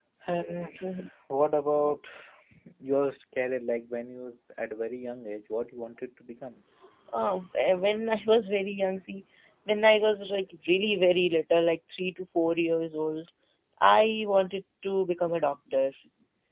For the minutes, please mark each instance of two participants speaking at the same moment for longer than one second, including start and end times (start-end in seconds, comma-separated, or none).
none